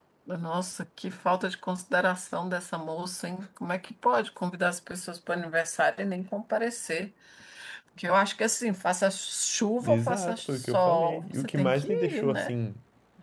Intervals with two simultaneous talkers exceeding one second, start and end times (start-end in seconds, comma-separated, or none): 9.8-12.5